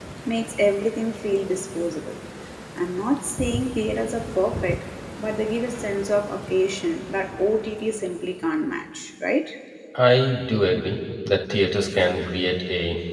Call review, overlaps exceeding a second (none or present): none